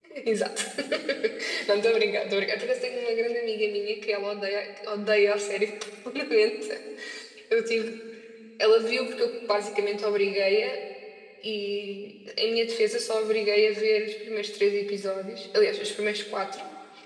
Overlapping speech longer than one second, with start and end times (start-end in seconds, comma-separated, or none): none